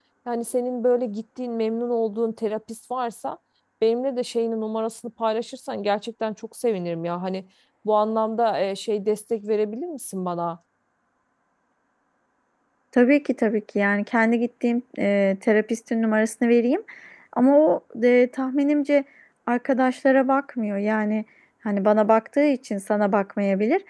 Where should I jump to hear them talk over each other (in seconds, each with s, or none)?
none